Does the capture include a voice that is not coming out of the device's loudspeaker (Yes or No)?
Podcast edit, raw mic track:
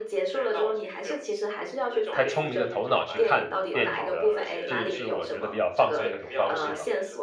Yes